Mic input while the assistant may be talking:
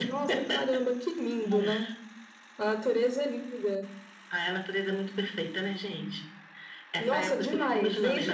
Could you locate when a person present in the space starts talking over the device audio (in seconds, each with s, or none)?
1.4 s